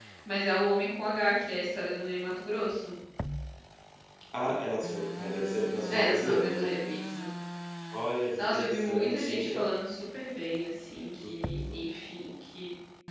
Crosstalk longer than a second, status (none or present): present